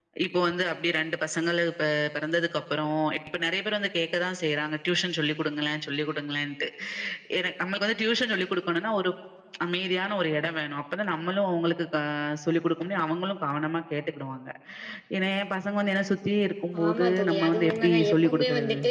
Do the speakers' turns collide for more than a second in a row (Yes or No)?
Yes